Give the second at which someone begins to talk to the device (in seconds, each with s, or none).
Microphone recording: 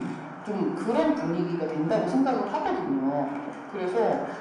none